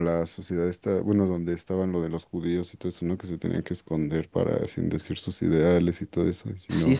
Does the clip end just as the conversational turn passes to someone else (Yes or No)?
Yes